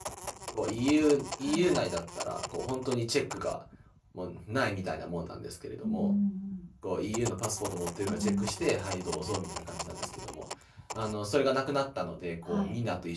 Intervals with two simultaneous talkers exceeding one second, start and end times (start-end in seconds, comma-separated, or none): none